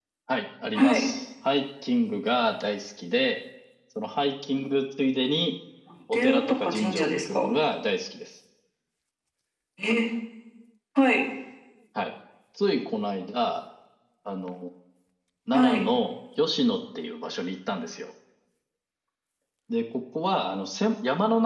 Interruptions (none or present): present